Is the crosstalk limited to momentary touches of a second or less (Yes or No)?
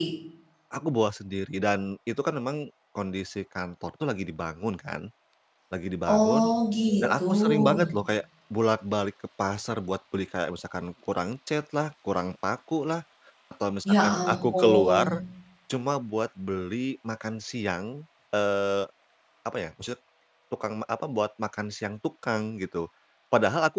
No